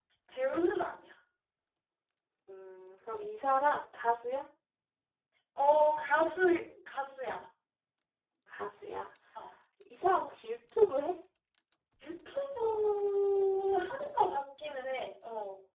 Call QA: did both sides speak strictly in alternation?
Yes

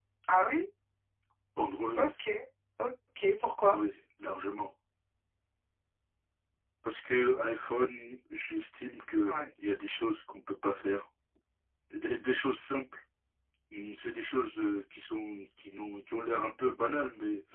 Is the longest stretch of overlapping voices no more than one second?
Yes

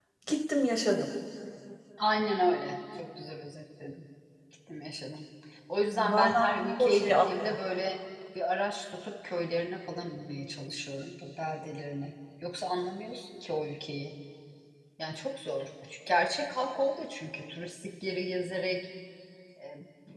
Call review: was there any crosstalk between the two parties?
Yes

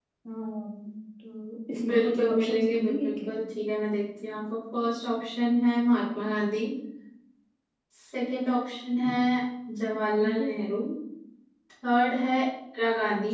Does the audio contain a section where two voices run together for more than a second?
Yes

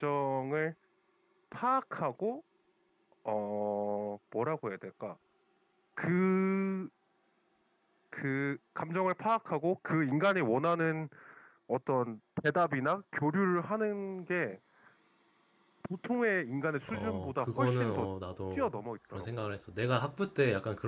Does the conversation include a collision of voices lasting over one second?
Yes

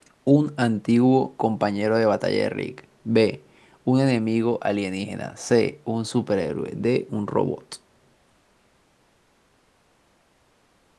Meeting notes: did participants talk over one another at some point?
No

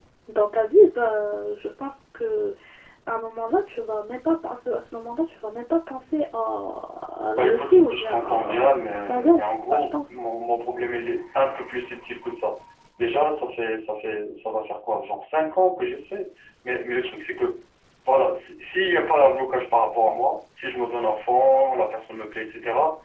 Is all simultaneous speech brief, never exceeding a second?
No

